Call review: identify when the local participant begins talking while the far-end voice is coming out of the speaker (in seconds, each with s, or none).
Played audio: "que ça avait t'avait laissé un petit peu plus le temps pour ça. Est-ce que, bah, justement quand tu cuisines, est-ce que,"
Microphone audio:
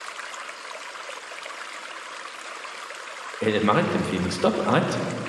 3.4 s